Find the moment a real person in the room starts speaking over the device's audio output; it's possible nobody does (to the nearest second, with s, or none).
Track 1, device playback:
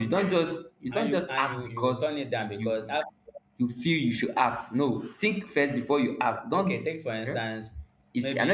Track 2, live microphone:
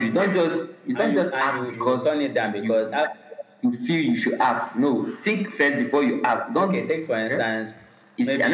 none